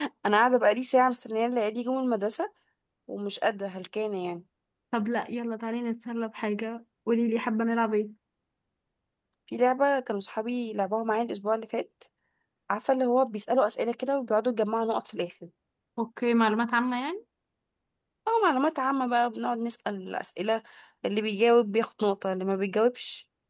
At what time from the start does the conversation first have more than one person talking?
none

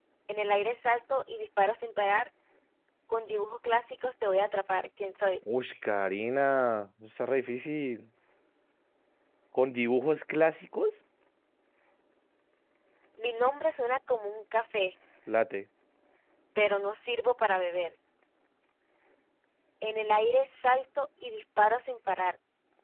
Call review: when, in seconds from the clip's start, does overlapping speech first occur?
none

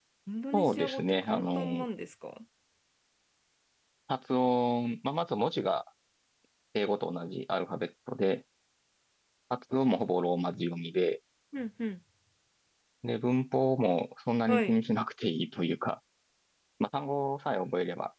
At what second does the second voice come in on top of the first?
0.5 s

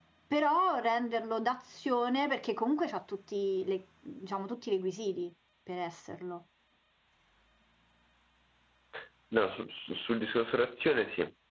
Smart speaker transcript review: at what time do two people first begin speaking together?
none

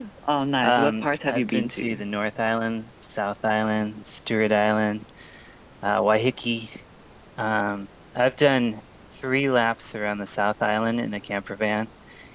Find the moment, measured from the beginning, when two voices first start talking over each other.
0.6 s

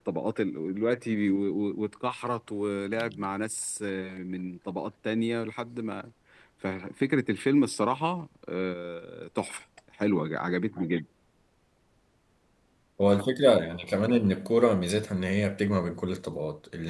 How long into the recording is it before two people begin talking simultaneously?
none

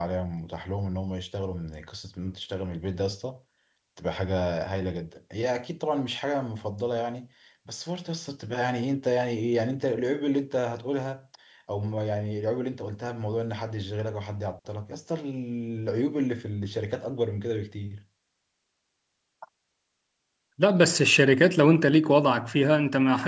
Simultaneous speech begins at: none

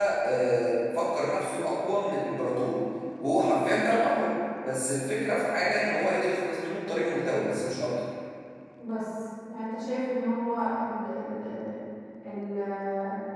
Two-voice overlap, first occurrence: none

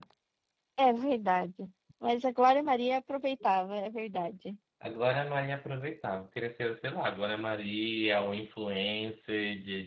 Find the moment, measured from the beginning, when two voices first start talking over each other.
none

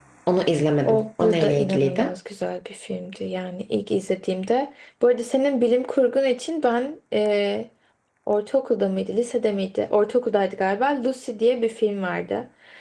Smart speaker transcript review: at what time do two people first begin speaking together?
0.8 s

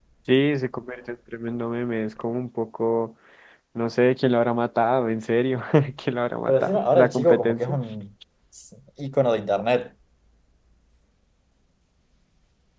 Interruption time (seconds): 6.5 s

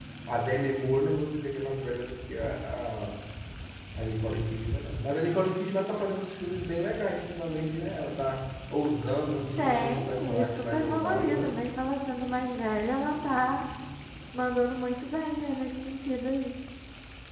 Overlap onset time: 9.6 s

